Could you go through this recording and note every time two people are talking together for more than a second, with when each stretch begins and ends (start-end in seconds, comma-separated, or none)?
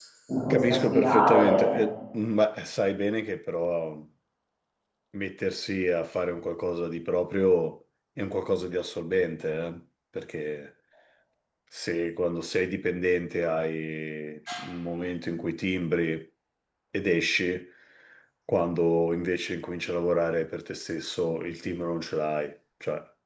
0.5-1.8